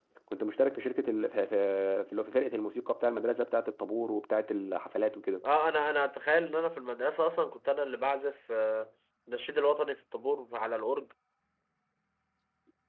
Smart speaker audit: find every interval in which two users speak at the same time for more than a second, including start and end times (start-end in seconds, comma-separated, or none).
none